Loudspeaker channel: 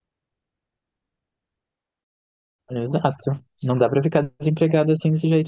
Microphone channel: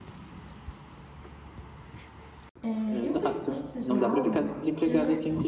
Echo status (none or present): present